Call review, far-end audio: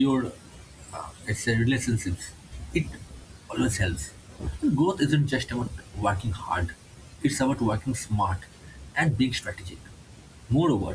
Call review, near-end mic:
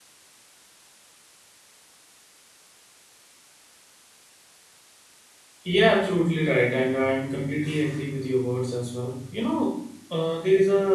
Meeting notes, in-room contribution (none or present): present